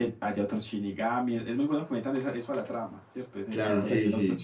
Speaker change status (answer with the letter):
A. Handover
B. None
A